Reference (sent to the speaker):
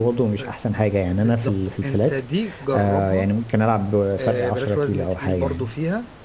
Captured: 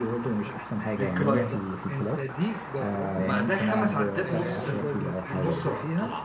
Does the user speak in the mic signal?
Yes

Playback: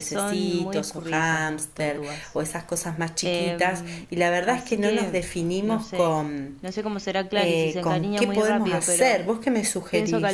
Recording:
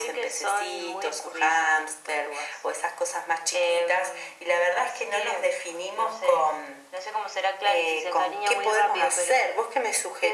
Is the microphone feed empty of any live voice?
Yes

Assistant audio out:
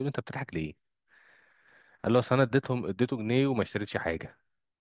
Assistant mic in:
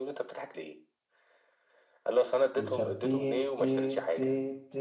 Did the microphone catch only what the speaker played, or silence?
No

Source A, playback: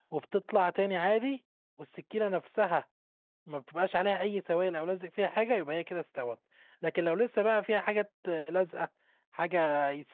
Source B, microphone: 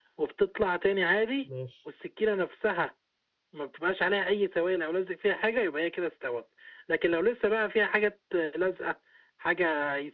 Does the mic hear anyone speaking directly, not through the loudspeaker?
Yes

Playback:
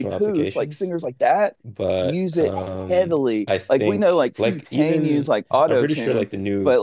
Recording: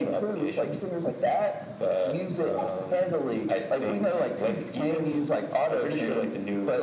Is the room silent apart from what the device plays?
Yes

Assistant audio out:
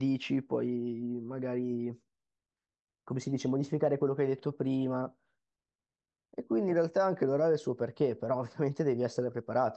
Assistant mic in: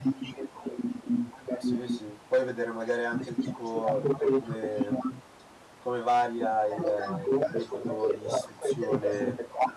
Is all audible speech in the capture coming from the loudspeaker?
No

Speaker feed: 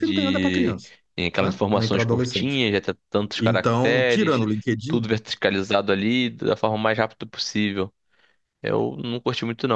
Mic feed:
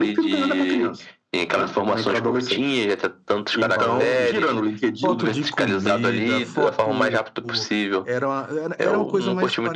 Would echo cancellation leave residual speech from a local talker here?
Yes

